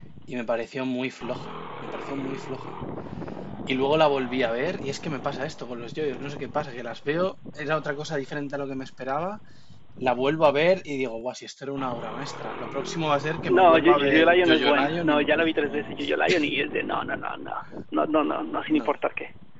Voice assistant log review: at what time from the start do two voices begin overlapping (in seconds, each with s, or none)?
13.5 s